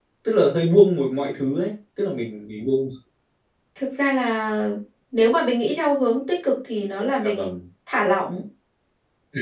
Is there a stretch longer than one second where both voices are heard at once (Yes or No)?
No